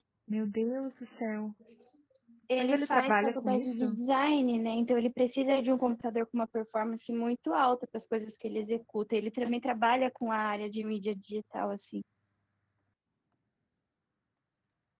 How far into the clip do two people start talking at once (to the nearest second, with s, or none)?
3 s